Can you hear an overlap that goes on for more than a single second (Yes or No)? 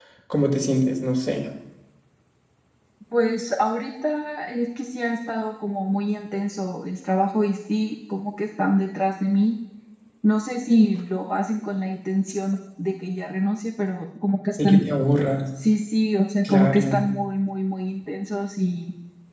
No